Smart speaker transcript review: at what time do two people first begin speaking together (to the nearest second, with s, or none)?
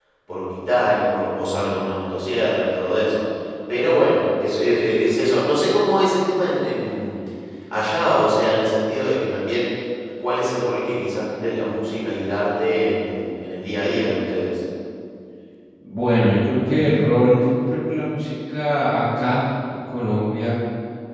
none